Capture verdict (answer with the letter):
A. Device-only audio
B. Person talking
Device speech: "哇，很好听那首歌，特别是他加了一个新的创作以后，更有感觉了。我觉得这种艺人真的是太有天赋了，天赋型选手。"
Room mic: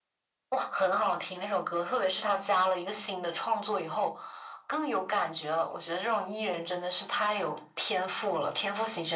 A